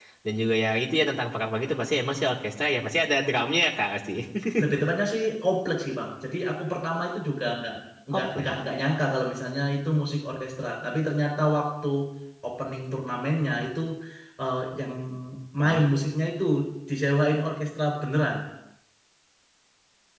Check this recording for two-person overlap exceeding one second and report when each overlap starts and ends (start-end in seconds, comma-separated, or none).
none